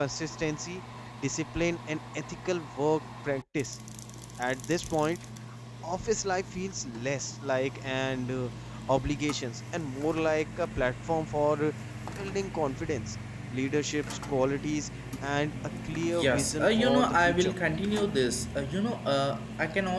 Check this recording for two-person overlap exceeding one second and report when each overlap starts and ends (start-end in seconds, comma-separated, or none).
16.1-17.5